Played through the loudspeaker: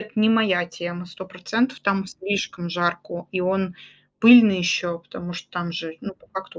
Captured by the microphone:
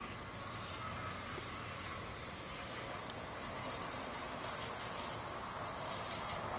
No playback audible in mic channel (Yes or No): Yes